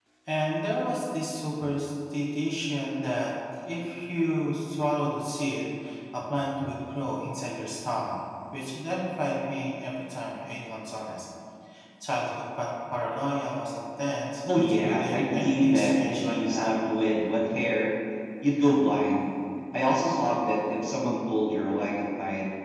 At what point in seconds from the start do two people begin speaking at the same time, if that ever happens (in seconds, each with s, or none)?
14.4 s